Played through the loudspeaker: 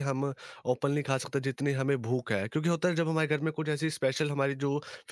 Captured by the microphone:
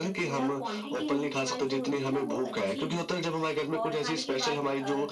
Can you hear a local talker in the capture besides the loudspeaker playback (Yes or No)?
Yes